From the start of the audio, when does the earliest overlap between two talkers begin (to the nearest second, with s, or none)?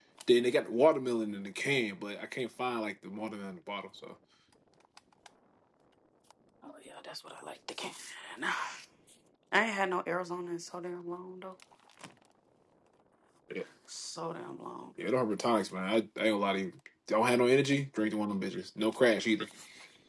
none